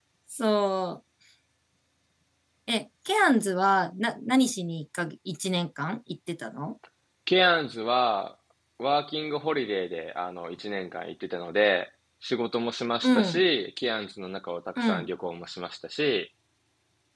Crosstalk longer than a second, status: none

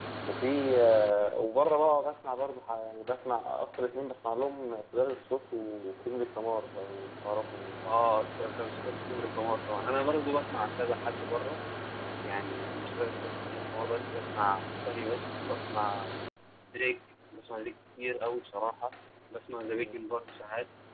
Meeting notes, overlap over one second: none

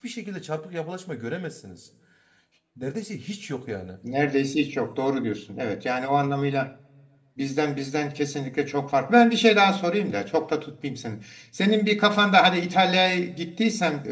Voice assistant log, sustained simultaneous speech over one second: none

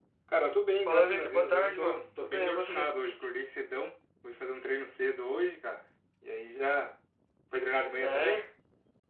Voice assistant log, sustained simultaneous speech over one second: present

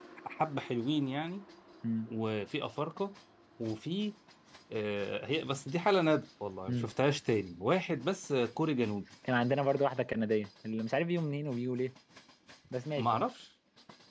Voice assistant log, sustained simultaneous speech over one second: none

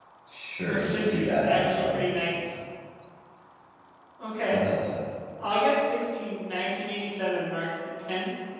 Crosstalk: present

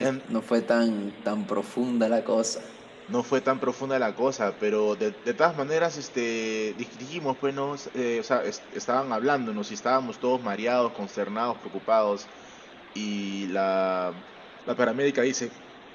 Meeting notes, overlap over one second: none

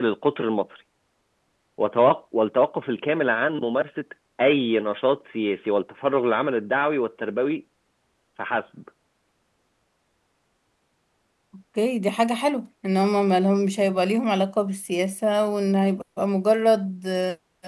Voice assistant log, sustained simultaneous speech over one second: none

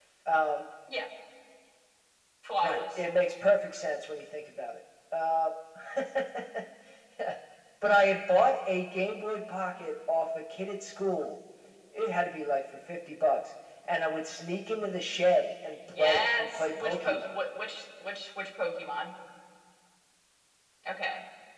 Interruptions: present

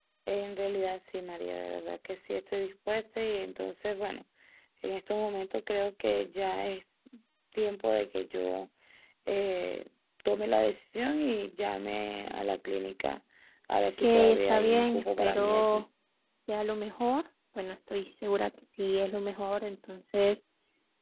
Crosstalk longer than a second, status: present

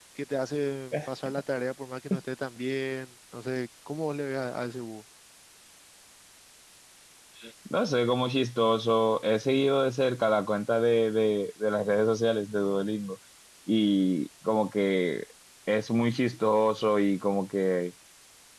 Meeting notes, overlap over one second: none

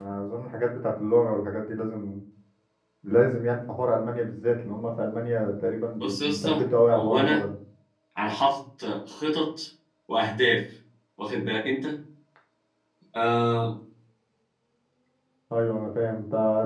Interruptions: present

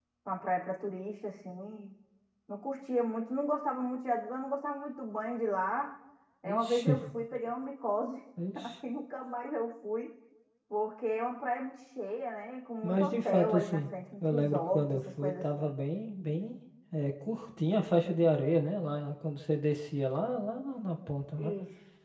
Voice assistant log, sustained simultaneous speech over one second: present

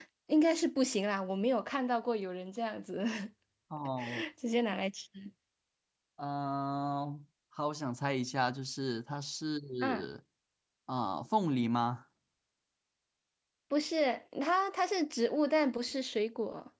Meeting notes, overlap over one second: none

